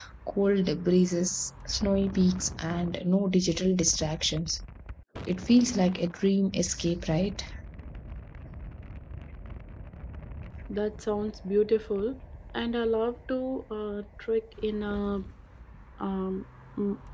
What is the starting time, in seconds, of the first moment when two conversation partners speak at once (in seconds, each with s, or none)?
none